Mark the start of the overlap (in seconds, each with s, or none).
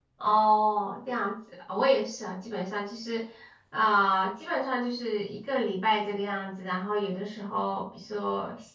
none